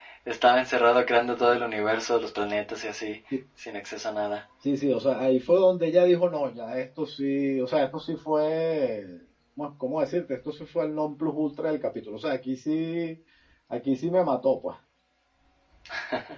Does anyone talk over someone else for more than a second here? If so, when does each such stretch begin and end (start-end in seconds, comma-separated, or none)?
none